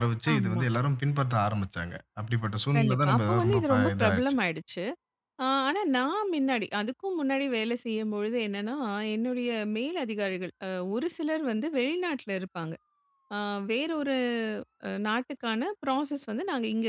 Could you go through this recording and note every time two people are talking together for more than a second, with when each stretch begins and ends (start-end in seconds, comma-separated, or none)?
2.8-4.2